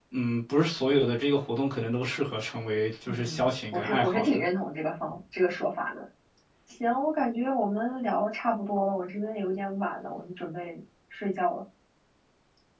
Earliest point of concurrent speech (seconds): 3.1 s

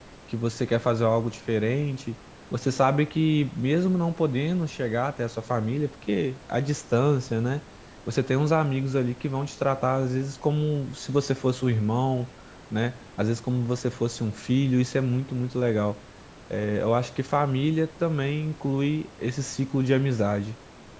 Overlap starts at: none

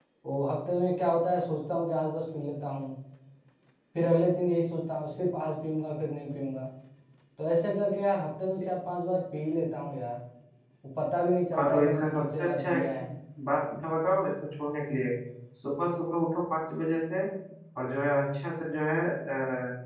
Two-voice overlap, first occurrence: 11.6 s

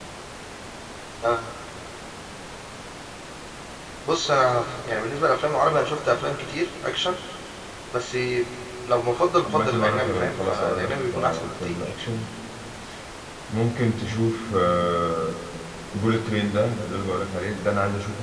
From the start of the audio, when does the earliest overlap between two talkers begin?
9.4 s

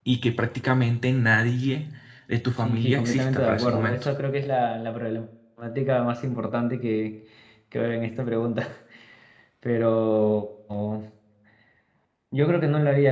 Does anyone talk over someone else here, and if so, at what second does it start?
2.6 s

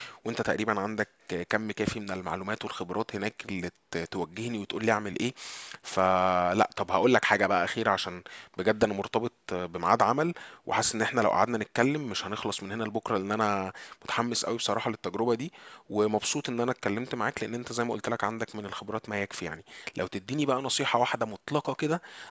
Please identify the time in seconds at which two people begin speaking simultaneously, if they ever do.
none

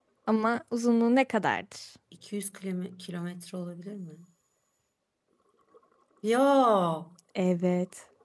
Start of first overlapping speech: none

